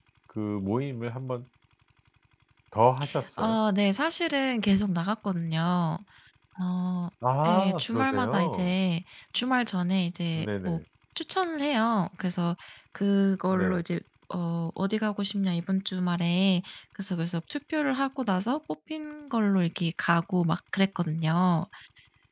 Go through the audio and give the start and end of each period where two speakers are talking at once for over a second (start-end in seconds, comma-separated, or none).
7.5-8.7